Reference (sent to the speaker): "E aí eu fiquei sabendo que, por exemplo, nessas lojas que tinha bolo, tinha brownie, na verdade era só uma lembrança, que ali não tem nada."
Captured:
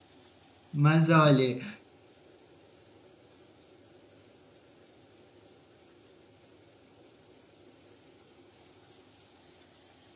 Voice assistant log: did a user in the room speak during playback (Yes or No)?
Yes